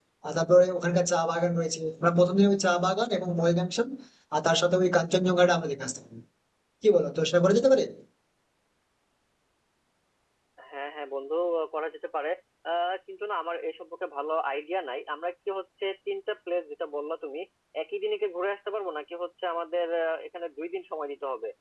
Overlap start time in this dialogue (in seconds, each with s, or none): none